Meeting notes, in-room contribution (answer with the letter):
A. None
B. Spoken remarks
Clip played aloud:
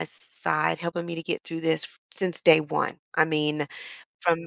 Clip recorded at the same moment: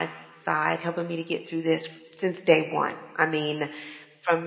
A